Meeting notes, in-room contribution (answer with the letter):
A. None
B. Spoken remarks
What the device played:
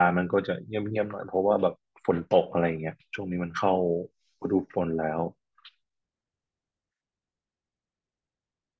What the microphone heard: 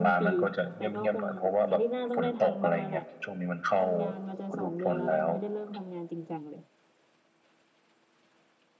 B